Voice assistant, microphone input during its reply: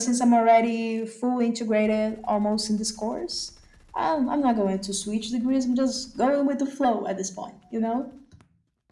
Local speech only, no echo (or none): none